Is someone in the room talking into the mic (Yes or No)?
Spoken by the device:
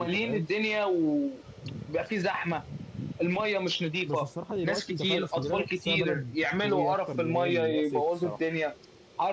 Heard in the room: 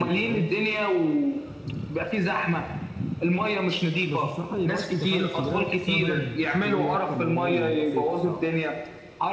No